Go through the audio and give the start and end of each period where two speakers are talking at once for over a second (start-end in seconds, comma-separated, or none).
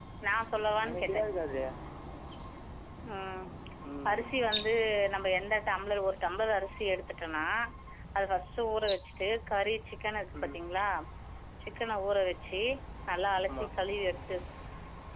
none